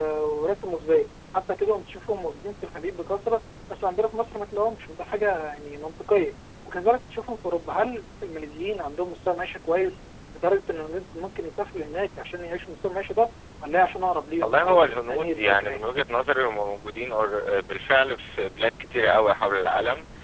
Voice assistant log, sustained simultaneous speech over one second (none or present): present